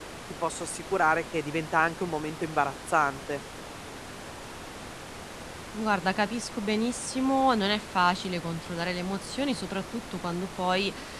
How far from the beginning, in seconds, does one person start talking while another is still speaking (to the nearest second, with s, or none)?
none